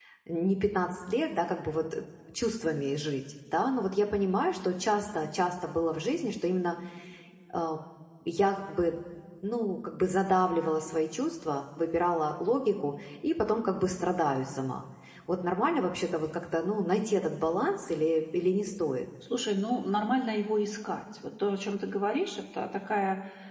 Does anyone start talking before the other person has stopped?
No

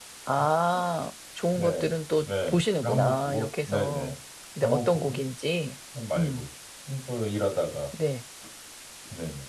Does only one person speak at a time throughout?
No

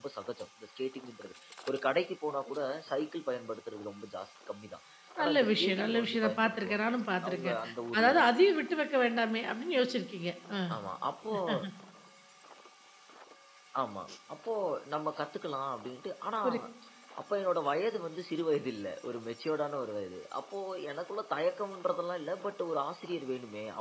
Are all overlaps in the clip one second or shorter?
No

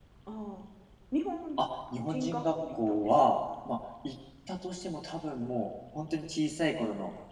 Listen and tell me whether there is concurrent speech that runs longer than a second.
Yes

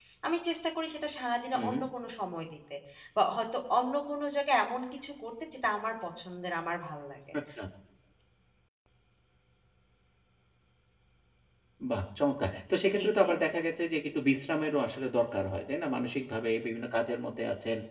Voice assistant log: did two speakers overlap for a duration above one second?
No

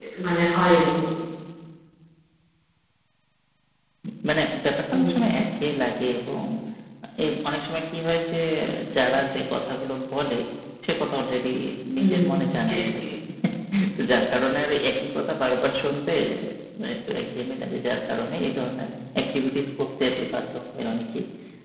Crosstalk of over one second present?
No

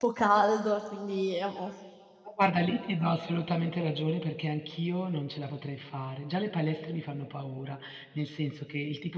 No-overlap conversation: Yes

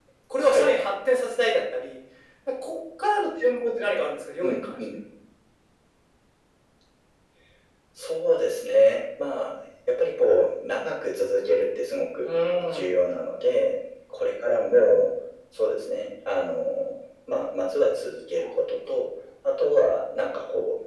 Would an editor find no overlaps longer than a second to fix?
Yes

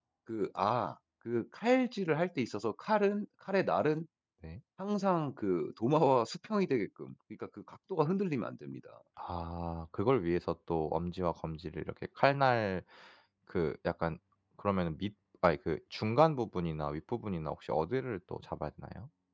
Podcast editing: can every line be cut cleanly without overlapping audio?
Yes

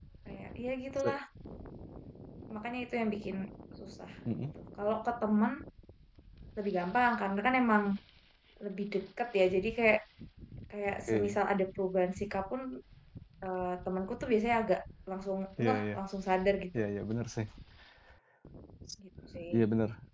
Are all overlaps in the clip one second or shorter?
Yes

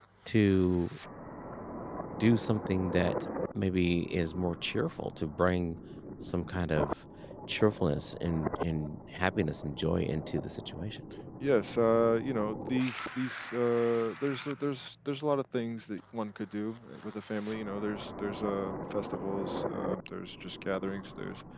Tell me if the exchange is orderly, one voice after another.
Yes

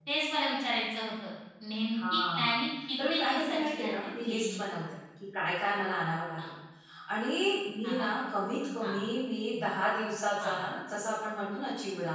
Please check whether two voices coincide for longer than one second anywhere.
Yes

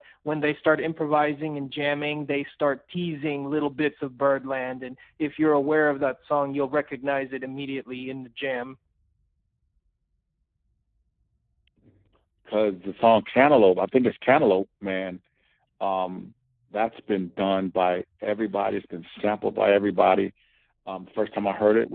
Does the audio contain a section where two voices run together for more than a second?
No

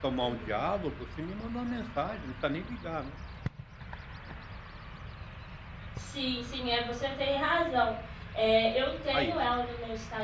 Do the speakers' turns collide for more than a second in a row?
No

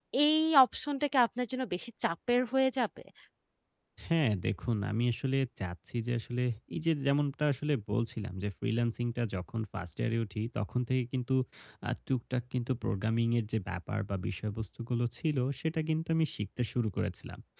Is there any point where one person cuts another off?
No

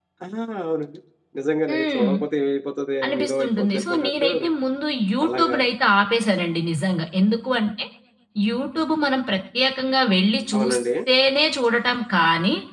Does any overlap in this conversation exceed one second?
Yes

